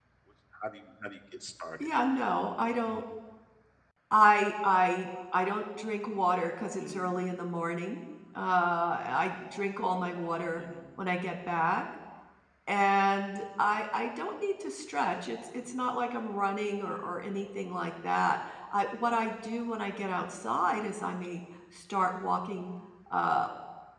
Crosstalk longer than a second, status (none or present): none